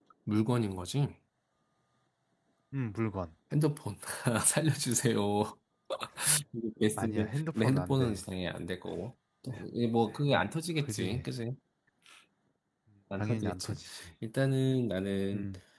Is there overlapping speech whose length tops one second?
Yes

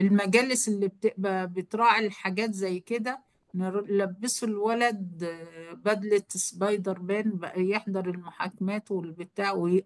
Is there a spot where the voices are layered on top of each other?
No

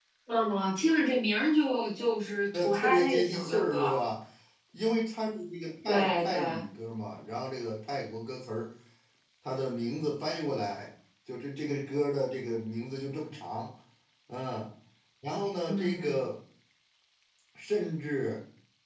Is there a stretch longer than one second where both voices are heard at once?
Yes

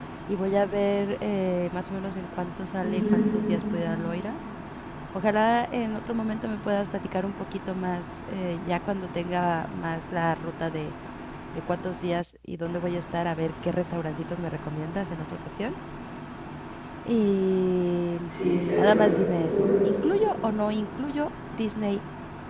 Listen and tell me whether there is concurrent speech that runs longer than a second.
No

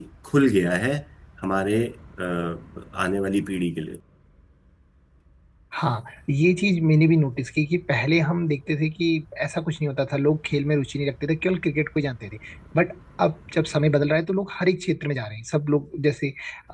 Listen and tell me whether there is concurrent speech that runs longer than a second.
No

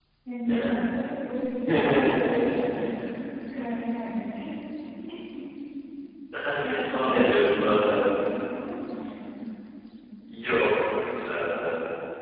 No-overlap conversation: No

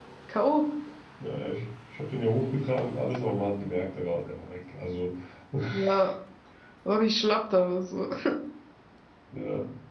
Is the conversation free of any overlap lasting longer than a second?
Yes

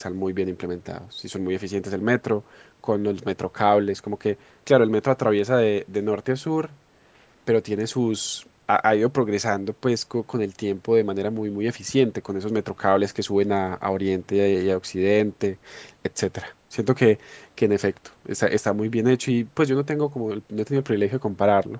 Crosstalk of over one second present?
No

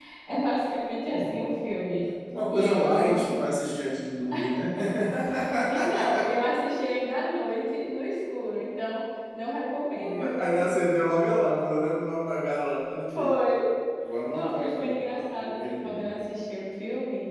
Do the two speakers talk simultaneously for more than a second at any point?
Yes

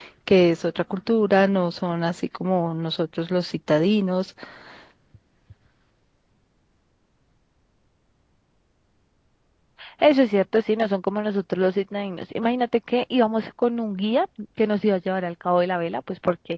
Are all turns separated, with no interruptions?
Yes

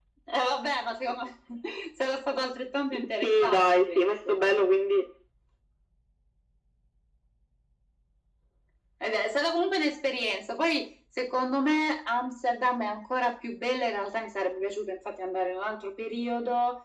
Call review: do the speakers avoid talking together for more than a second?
No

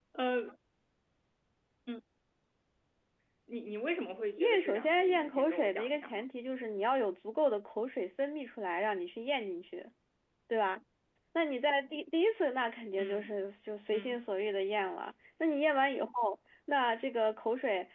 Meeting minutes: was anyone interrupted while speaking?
Yes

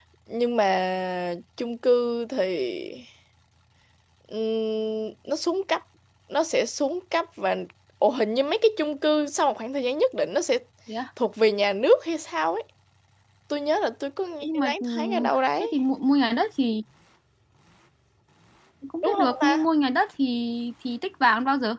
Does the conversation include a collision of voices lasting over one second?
Yes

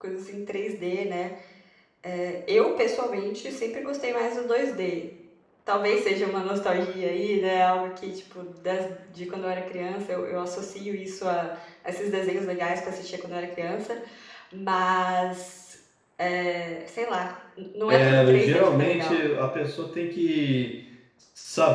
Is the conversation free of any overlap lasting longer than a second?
No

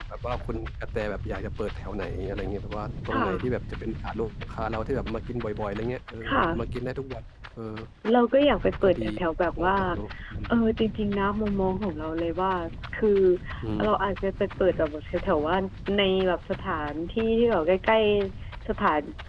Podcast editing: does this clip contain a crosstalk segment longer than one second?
No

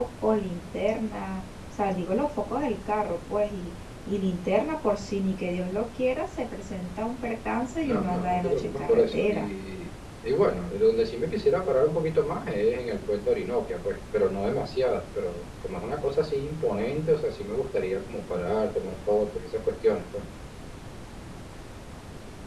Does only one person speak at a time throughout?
No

